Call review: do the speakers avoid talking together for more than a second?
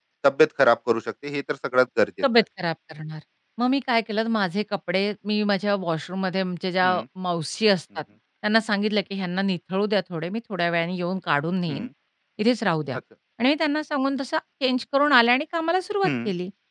Yes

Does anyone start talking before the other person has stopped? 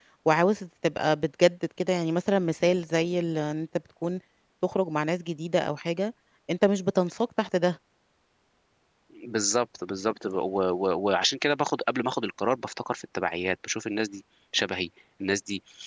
No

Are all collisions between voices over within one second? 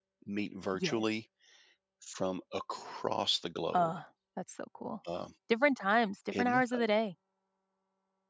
Yes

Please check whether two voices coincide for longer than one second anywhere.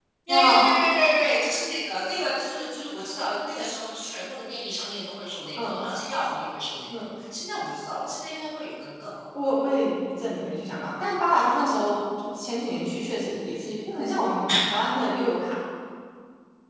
No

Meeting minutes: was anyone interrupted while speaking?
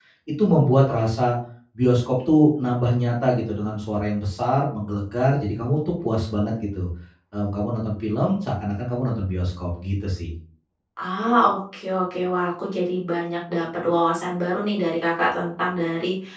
No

